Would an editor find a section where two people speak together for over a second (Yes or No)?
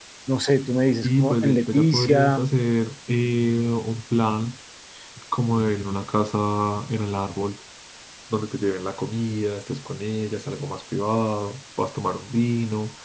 Yes